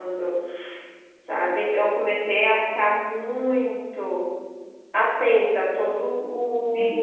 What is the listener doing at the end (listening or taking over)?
taking over